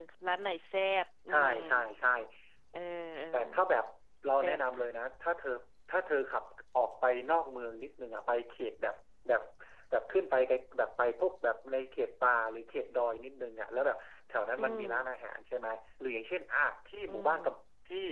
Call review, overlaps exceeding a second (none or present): none